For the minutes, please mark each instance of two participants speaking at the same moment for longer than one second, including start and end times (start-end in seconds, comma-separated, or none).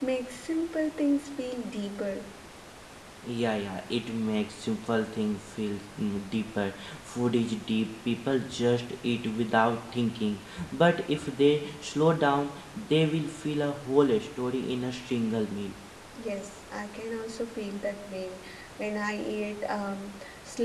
none